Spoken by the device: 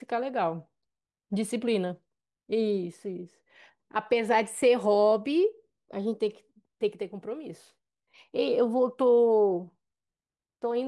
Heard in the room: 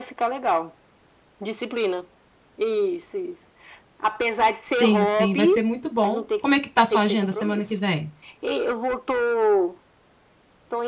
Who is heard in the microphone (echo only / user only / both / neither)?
both